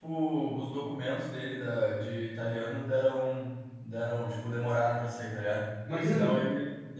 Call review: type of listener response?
listening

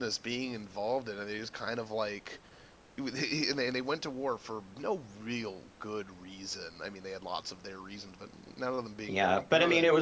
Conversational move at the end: taking over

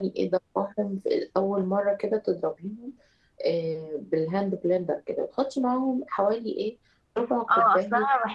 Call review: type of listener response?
taking over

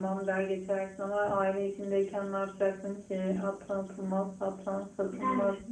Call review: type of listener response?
taking over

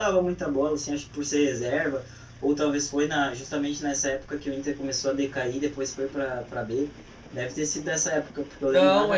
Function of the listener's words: taking over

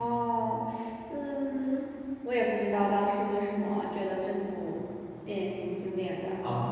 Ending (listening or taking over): taking over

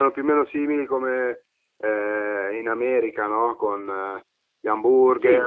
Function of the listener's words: taking over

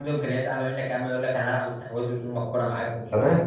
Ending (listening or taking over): taking over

